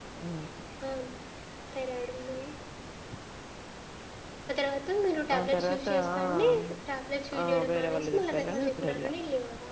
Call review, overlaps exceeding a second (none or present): present